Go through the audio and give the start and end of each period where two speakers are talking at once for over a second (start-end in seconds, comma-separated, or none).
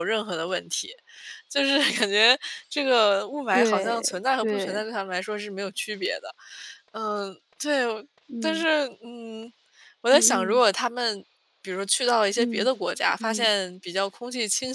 3.5-4.8